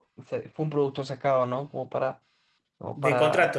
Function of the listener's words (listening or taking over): taking over